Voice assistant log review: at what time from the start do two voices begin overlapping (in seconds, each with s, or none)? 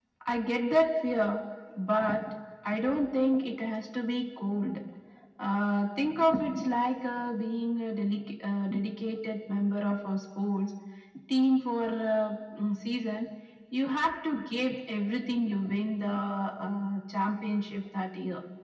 none